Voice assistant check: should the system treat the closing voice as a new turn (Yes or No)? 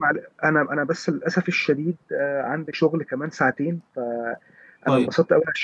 No